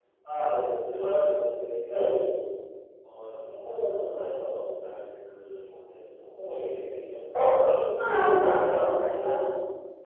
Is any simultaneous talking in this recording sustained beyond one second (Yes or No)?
No